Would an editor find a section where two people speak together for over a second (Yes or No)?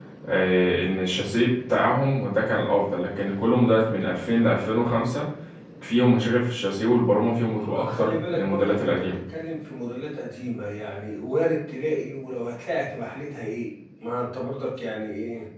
Yes